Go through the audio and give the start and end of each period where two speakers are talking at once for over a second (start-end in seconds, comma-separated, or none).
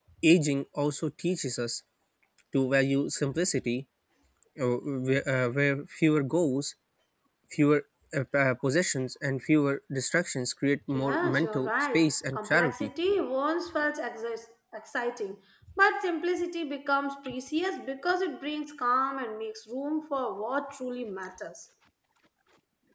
10.9-12.9